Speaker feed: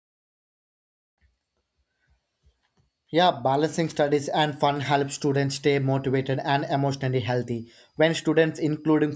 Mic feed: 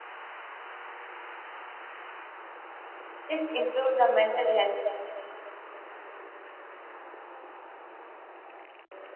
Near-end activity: present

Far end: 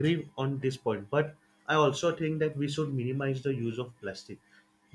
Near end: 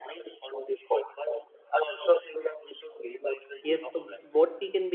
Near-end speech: present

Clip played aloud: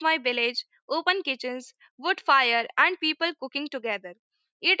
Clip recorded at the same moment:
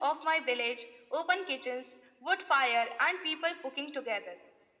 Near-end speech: none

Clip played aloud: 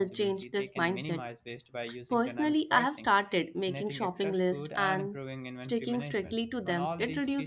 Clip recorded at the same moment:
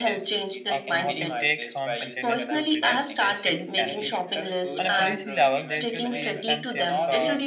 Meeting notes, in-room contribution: present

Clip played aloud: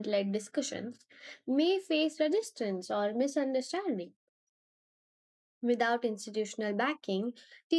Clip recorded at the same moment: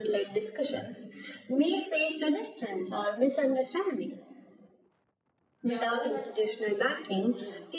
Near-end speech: present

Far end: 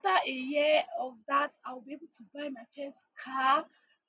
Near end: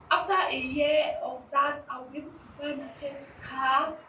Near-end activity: none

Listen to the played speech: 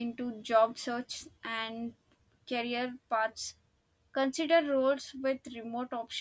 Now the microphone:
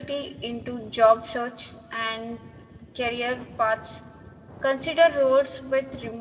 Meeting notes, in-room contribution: none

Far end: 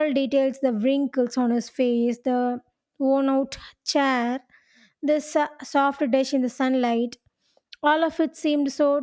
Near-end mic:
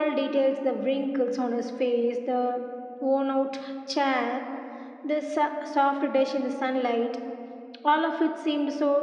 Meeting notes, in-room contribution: none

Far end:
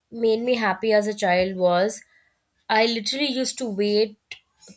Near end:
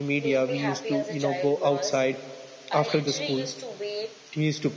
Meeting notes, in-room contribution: present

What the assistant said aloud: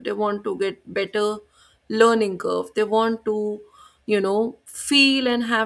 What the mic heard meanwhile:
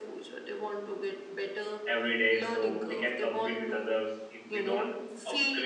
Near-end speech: present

